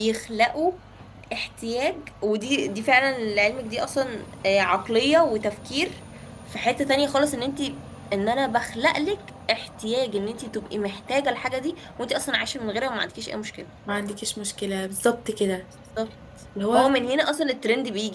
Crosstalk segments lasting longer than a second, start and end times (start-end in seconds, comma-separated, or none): none